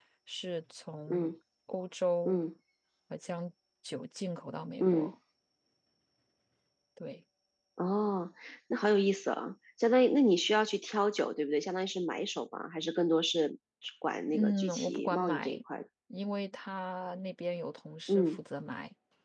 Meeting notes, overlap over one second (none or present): present